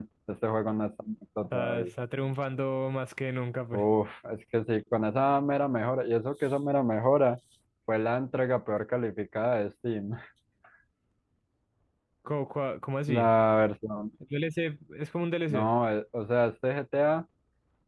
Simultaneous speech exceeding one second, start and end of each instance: none

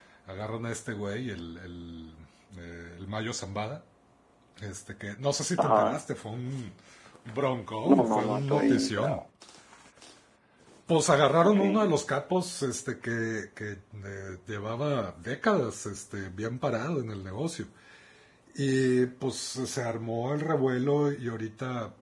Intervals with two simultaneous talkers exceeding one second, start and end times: 7.8-9.2

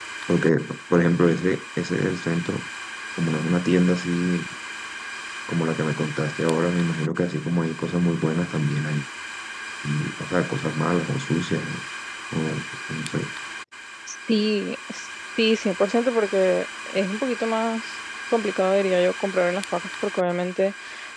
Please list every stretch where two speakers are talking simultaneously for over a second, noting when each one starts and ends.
none

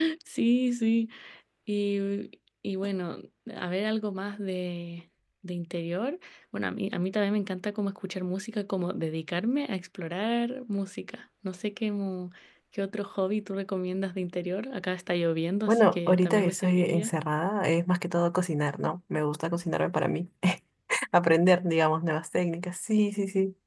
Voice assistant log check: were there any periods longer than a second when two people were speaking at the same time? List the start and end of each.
15.7-17.1

